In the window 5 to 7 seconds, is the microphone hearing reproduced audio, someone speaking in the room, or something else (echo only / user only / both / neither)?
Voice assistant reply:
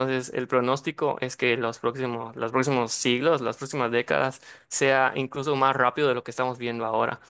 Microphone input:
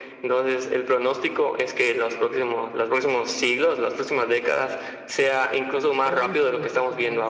both